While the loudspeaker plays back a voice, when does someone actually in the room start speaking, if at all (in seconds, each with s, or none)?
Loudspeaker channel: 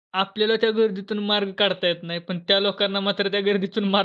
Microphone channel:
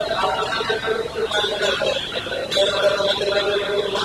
none